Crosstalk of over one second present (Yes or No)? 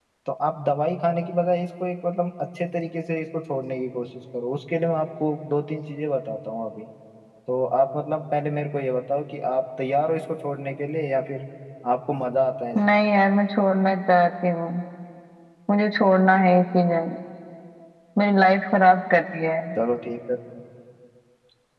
No